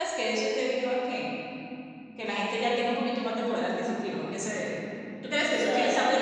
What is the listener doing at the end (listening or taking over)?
listening